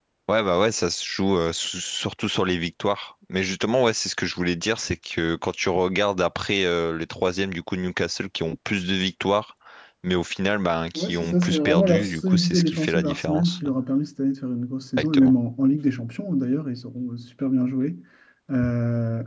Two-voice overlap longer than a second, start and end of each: 11.0-13.7

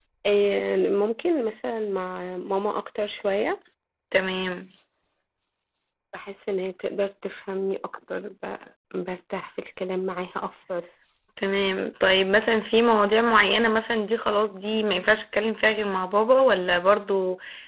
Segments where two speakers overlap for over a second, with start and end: none

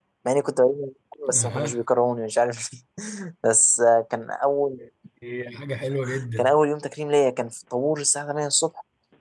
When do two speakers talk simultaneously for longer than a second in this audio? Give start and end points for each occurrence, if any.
none

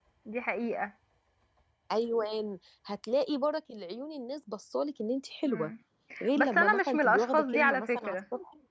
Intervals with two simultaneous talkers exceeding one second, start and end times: 6.4-8.2

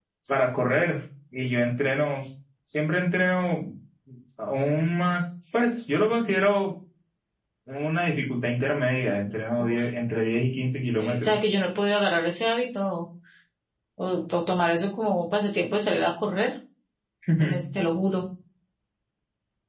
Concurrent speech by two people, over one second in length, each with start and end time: none

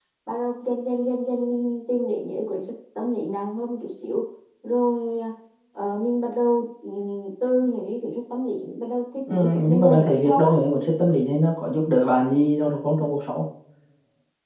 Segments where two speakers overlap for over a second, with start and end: 9.3-10.5

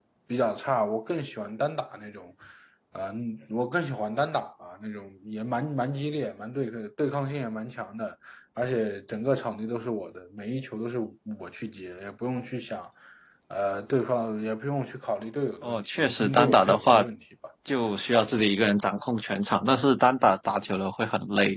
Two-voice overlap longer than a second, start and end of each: 15.6-17.0

